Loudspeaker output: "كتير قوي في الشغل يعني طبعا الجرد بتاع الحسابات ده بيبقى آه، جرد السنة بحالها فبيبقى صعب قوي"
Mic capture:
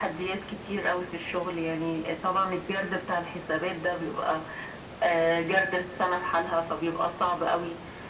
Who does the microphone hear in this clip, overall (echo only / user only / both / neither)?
echo only